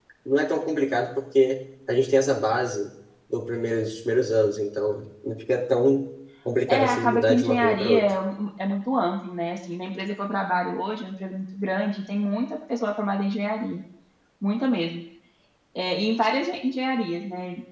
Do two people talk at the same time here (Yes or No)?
Yes